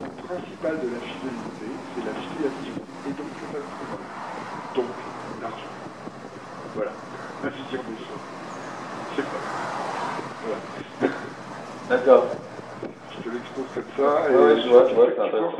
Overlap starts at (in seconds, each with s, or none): 14.0 s